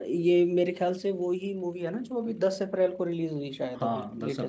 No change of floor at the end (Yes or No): No